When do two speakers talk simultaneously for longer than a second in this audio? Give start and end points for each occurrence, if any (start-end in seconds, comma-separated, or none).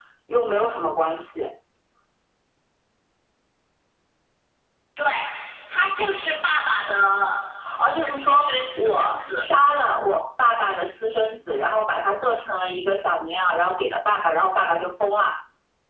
7.8-9.4